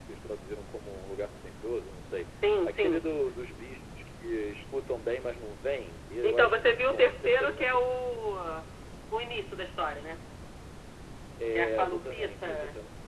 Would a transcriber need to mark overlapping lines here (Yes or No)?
Yes